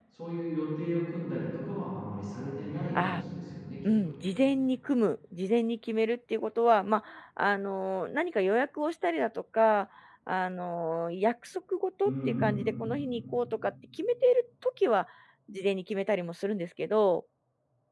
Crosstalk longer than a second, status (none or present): none